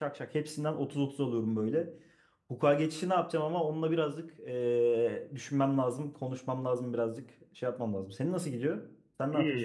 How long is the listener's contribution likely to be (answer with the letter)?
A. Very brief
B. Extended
B